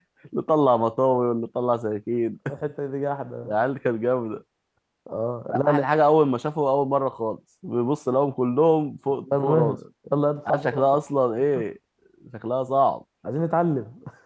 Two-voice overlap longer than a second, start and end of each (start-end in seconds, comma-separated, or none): none